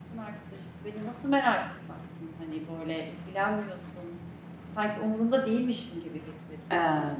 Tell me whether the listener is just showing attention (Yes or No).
Yes